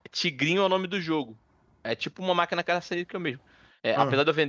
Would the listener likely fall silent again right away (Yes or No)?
Yes